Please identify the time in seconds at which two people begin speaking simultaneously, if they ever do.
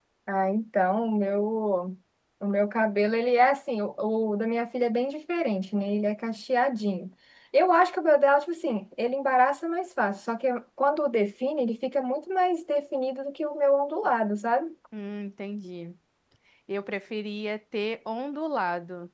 none

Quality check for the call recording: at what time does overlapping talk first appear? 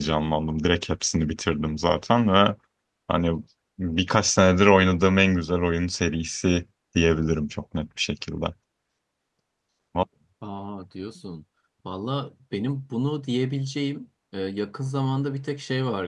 none

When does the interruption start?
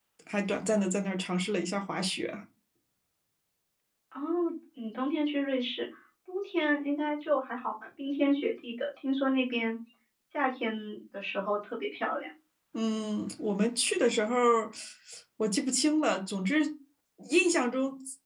none

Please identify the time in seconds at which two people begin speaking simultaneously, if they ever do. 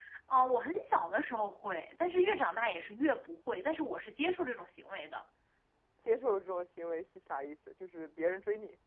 none

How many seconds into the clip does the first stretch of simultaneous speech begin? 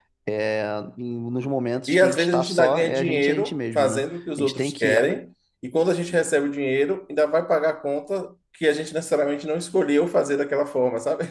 1.9 s

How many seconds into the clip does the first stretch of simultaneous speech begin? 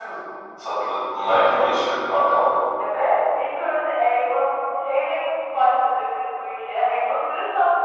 none

